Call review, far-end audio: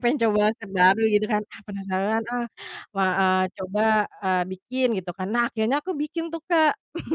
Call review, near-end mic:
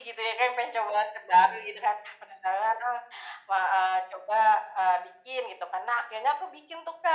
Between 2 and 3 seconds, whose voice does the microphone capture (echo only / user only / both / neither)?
echo only